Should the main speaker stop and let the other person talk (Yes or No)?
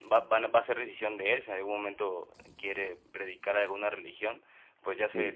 No